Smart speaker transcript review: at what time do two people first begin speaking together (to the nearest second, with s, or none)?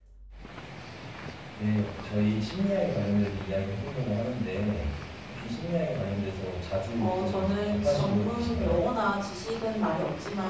7 s